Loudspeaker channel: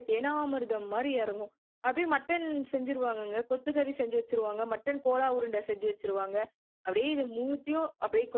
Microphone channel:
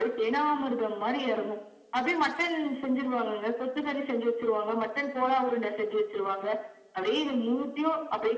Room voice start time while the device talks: none

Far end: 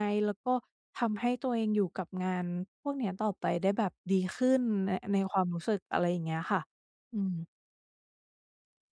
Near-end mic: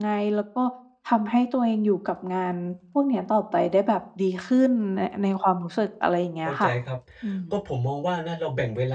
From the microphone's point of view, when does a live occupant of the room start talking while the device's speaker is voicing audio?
6.5 s

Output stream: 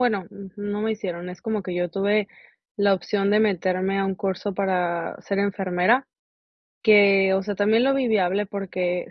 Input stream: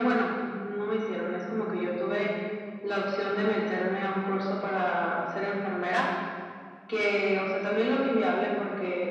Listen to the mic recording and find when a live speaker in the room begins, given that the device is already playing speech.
none

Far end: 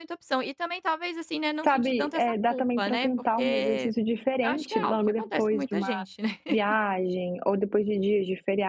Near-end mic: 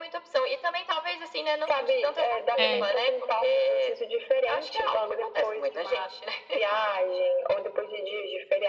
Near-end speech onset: 2.6 s

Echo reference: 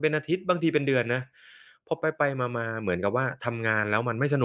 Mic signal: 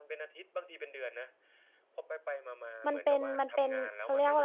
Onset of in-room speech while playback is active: 2.9 s

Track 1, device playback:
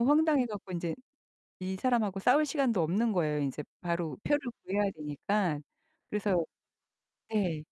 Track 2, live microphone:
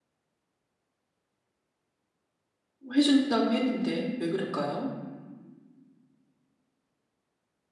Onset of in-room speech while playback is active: 2.9 s

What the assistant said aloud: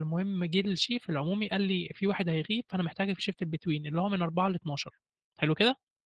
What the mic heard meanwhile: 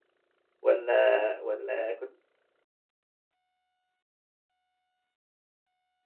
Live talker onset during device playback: 0.6 s

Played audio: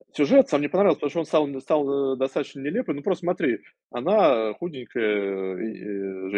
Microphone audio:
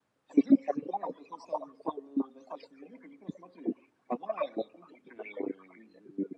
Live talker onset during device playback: none

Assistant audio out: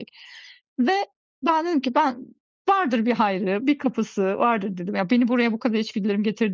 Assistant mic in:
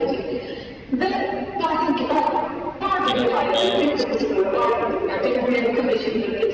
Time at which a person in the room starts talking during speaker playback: 3.0 s

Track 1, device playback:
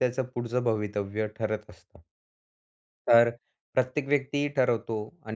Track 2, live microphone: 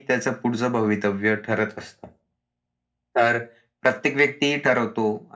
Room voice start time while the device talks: none

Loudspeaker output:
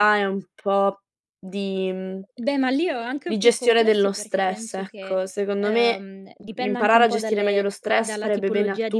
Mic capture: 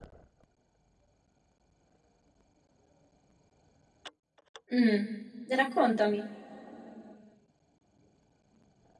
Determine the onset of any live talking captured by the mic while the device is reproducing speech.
4.7 s

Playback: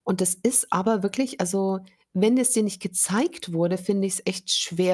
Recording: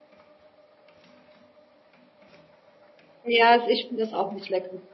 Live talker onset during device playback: 3.2 s

